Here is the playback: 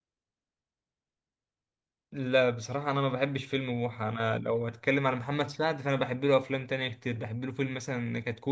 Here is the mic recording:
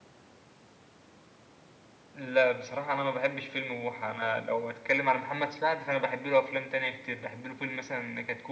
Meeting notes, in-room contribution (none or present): none